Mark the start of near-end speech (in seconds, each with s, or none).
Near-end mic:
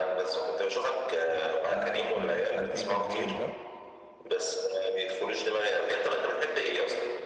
1.6 s